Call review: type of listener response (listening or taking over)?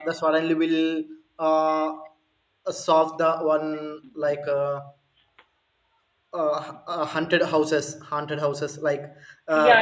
taking over